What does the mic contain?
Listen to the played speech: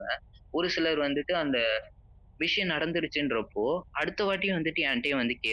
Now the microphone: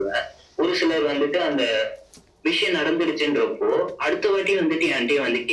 echo only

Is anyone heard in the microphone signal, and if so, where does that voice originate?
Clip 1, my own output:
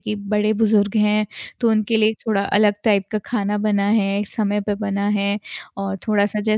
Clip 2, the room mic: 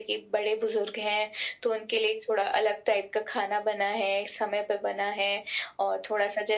echo only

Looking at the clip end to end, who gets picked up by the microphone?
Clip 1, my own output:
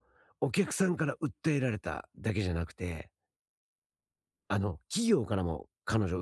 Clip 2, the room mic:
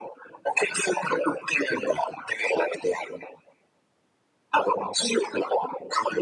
echo only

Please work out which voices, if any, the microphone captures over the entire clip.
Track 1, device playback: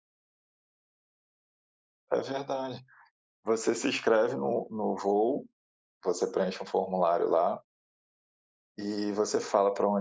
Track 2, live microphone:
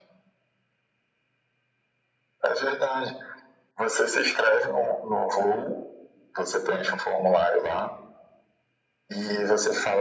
echo only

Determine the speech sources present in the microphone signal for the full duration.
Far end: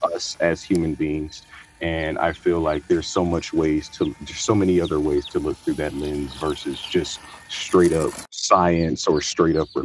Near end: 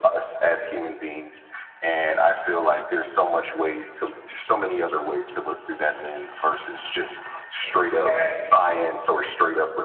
both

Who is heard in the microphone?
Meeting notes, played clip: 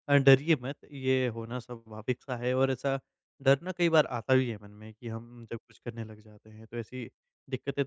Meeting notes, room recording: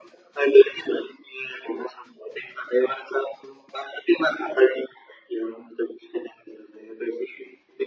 echo only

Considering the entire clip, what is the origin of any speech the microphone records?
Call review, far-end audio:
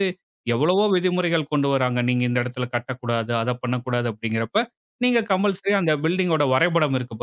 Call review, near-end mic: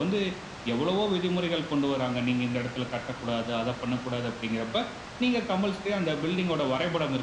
echo only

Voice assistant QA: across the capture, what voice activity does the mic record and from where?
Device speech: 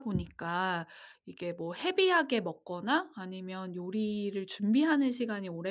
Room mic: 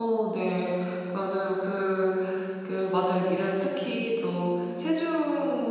user only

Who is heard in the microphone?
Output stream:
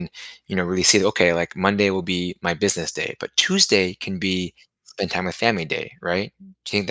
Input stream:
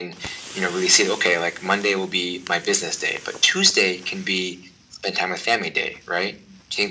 echo only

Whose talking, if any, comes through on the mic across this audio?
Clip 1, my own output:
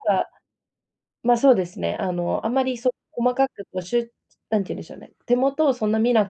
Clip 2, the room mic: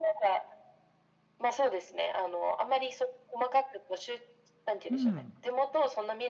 both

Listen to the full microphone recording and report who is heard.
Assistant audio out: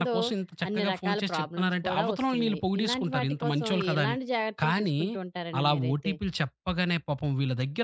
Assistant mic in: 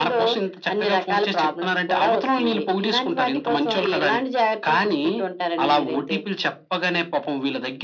echo only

